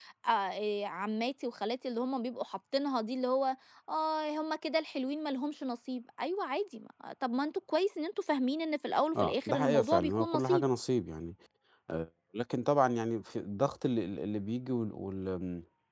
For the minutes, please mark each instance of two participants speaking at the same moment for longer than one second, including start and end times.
9.2-10.6

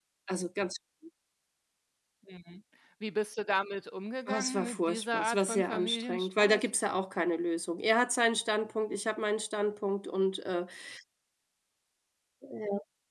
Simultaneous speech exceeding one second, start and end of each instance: 4.3-6.6

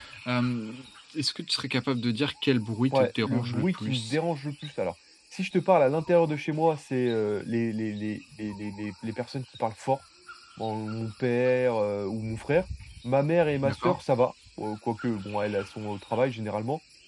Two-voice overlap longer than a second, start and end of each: 2.9-4.2

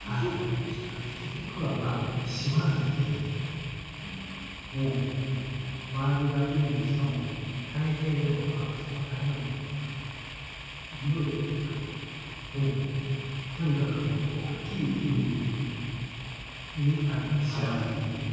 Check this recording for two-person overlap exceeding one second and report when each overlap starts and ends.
none

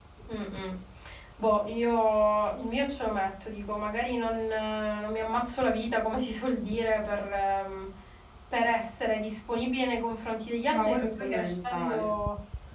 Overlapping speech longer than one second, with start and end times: 10.7-12.1

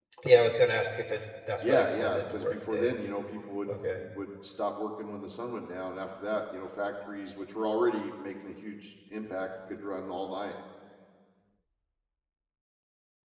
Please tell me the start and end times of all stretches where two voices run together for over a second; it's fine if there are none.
1.6-3.0

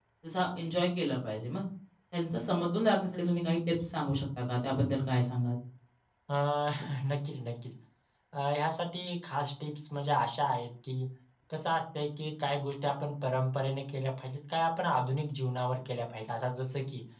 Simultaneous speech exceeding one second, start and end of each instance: none

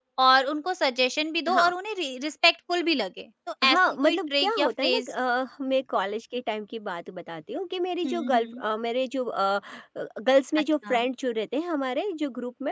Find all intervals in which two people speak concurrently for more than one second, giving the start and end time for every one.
3.6-5.0

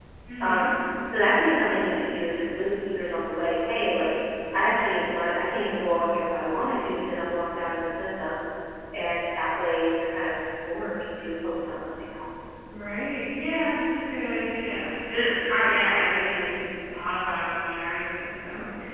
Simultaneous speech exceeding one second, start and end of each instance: none

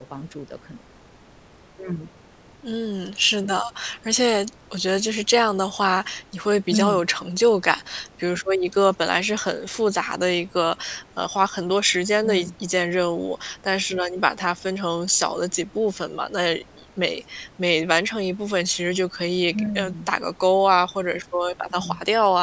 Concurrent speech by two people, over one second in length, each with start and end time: none

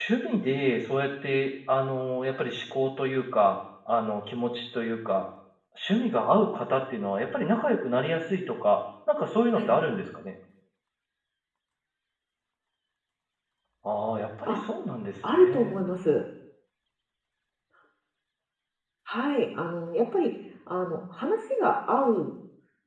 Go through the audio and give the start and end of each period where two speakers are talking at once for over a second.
none

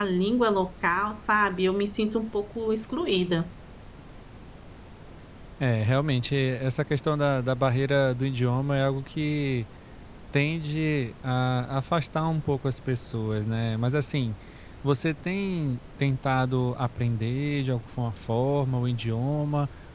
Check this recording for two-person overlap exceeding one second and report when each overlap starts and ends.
none

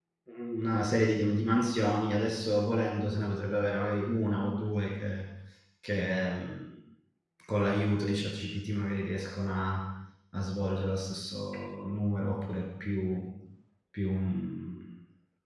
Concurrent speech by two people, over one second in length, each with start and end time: none

